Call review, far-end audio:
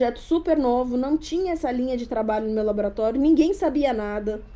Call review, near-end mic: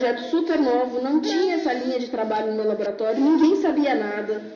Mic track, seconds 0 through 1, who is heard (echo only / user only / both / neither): echo only